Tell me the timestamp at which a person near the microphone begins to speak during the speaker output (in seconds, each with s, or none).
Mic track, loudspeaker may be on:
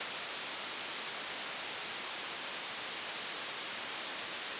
none